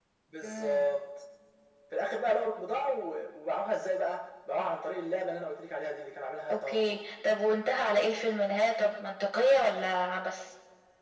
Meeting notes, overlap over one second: none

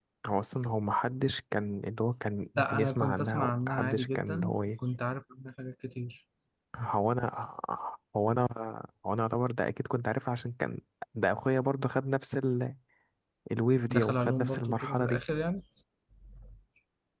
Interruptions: present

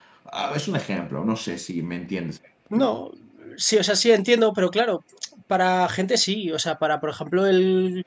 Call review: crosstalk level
none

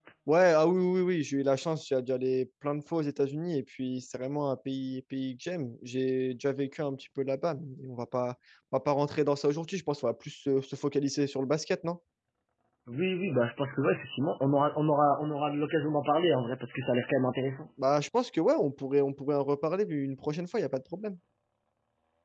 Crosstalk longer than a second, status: none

